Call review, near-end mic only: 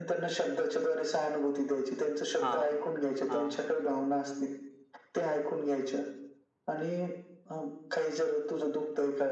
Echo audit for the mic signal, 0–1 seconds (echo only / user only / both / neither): echo only